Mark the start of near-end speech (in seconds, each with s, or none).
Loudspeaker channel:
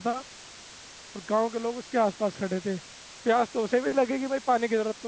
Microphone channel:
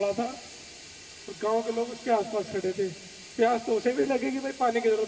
none